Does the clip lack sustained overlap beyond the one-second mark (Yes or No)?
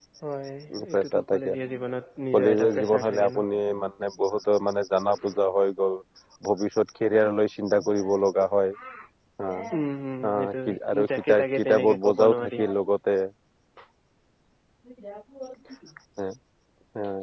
No